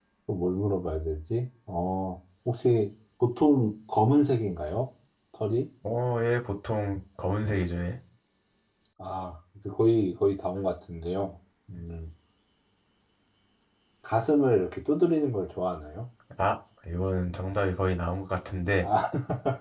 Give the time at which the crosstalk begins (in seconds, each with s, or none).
none